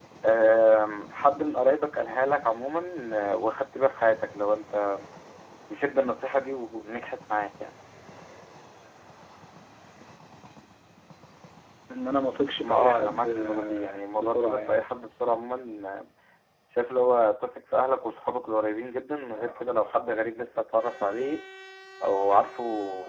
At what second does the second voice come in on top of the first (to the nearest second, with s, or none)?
13 s